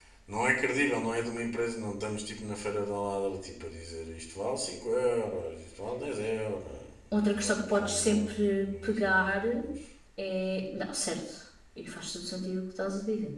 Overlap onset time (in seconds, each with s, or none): 7.2 s